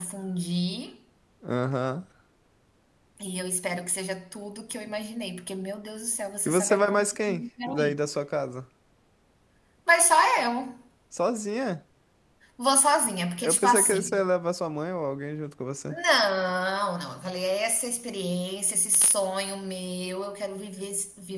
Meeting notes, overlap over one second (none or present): present